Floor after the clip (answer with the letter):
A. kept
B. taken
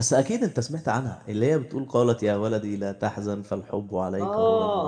B